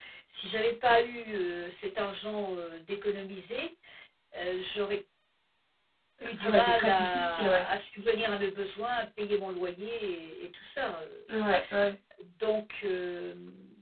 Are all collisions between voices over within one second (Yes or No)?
No